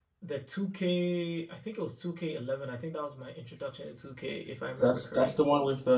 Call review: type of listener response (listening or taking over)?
taking over